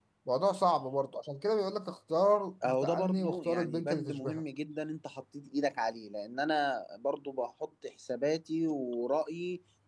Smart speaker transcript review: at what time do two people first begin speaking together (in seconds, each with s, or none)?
2.6 s